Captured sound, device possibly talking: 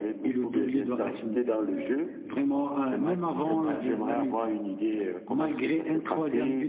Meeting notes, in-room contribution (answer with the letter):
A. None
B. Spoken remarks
B